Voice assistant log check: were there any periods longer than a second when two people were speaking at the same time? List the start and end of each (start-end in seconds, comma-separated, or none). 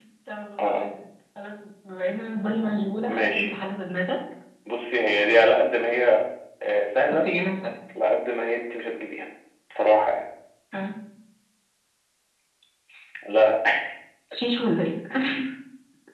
none